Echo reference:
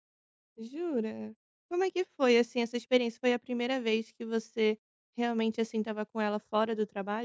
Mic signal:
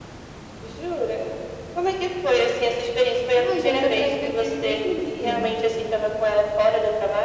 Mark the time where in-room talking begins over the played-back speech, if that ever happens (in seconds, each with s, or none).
3.3 s